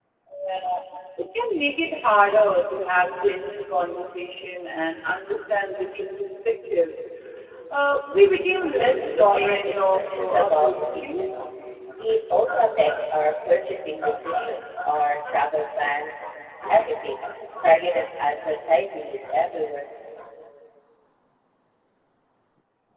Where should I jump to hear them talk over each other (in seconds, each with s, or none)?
8.6 s